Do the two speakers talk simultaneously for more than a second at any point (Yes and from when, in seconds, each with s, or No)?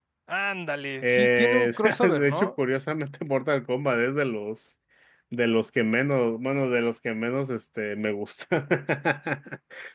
Yes, from 1.0 s